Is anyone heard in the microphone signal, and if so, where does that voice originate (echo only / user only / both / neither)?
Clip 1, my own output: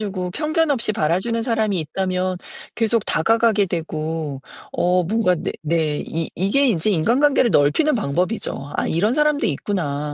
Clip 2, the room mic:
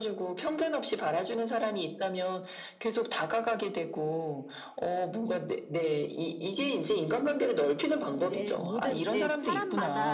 both